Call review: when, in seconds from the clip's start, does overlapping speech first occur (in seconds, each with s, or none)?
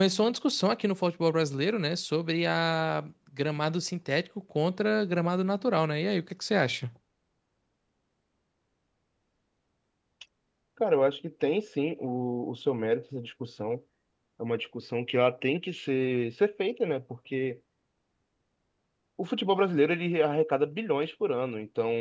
none